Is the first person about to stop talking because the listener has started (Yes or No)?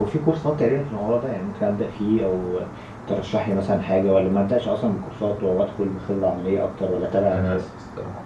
Yes